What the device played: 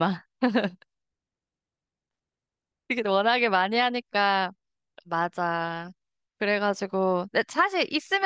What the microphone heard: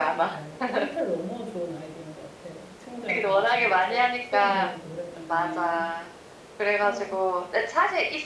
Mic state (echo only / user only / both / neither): both